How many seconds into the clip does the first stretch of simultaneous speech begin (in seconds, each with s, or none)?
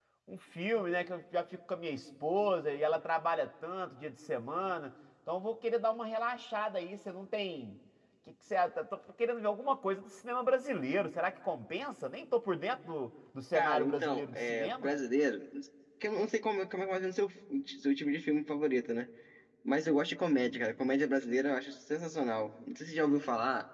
13.5 s